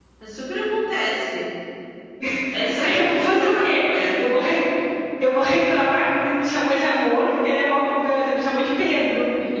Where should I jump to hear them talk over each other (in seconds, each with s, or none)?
2.8 s